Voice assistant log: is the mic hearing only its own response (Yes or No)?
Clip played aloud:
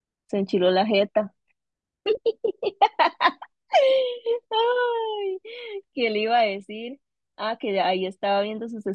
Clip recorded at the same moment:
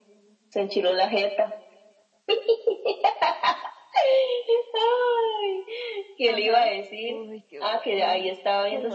No